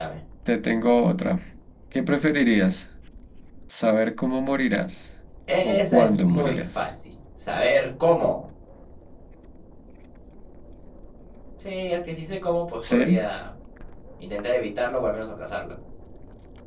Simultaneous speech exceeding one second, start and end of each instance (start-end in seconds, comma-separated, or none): 5.6-6.8